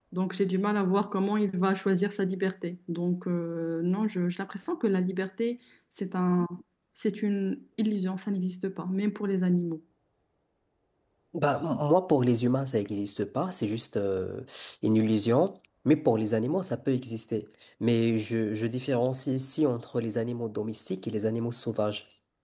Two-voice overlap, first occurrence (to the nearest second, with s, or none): none